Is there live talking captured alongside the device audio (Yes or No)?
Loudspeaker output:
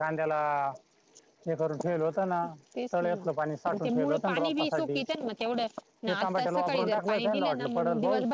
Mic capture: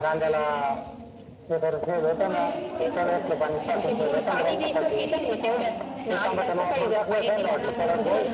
Yes